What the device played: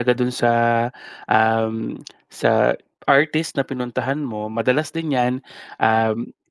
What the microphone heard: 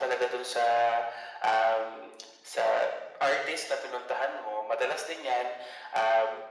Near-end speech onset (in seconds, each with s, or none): none